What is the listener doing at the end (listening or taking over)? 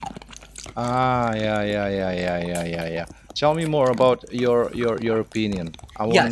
taking over